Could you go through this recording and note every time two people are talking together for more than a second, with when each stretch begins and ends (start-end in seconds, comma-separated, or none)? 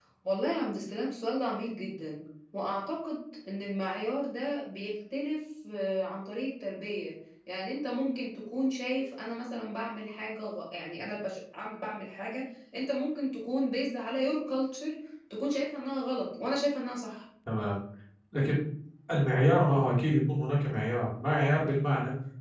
none